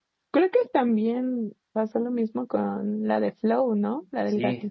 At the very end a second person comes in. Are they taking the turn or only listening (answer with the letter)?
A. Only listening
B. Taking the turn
B